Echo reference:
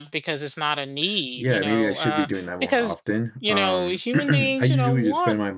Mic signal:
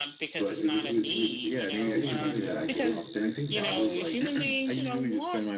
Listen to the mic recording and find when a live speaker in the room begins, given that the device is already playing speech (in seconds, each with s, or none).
0.4 s